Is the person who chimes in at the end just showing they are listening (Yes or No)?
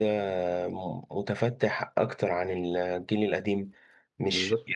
Yes